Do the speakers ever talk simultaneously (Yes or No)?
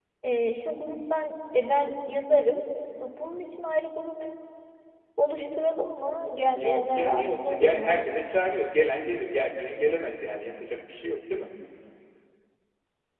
Yes